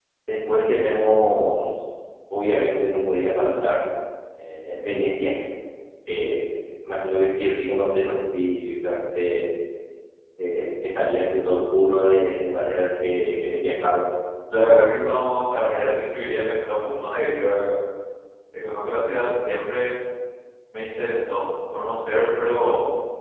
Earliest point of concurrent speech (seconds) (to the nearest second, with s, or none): none